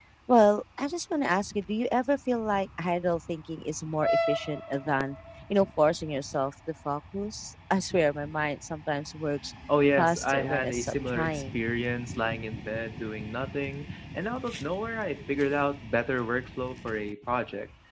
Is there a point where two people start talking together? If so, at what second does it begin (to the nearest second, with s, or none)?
10 s